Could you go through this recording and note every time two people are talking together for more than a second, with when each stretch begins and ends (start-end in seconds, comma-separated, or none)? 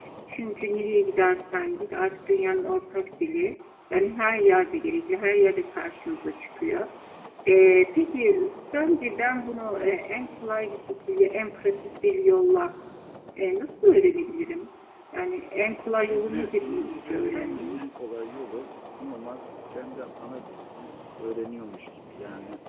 15.8-17.9